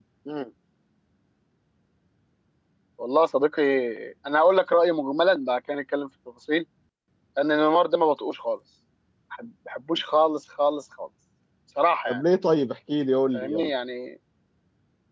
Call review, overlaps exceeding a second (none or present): none